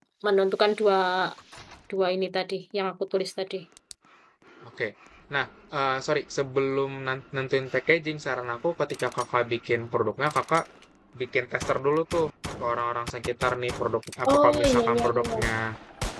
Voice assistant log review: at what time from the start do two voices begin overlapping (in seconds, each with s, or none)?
14.3 s